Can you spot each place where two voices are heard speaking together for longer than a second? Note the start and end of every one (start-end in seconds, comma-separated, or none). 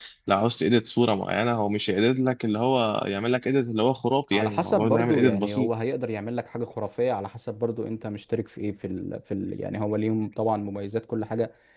4.3-5.7